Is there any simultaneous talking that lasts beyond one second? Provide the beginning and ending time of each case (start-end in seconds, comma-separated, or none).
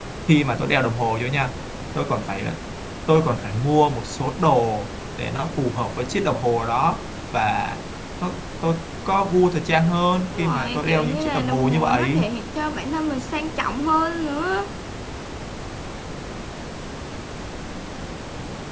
10.3-12.2